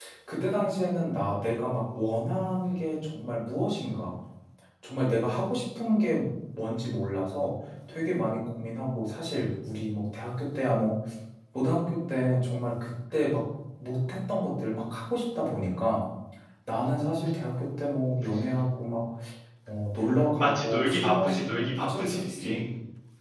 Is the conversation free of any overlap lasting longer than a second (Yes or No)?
No